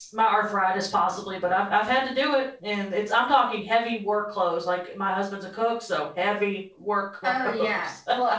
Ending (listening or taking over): taking over